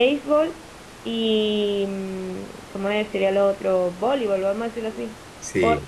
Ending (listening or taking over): listening